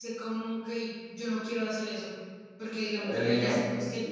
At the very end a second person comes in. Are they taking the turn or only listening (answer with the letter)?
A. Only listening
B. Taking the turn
A